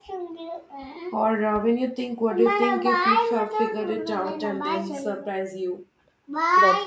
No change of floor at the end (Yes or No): No